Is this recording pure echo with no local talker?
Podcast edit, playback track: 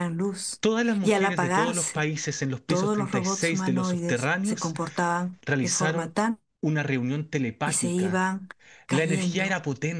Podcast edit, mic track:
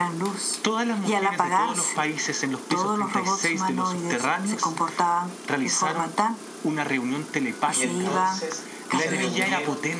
No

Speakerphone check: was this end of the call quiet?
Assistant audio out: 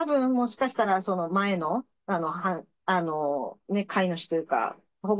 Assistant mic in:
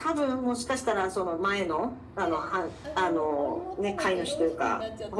No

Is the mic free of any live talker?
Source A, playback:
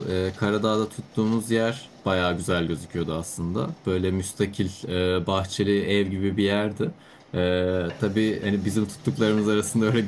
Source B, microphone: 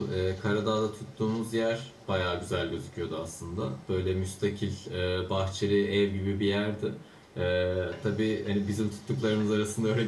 Yes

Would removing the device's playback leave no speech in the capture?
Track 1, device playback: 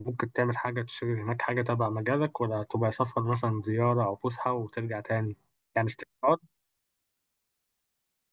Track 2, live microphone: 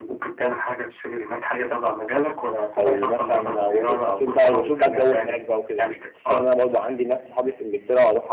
No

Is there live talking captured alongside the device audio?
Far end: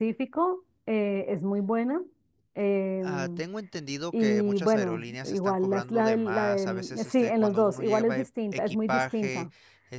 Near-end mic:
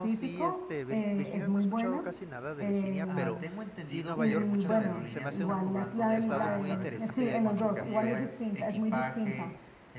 Yes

